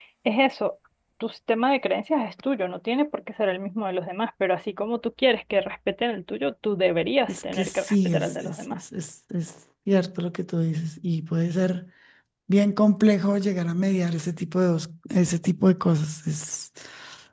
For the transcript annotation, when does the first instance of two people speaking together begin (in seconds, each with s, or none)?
7.2 s